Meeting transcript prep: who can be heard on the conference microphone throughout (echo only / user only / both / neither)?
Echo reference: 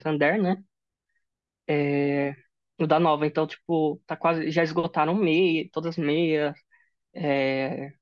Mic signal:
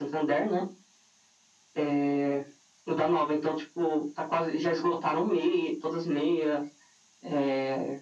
echo only